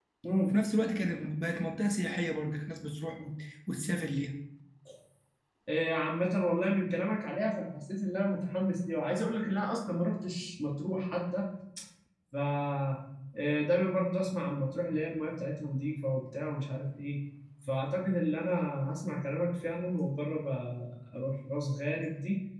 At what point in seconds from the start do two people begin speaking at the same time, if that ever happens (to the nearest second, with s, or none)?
none